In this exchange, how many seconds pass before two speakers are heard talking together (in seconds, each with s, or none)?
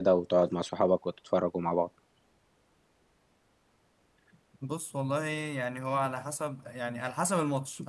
none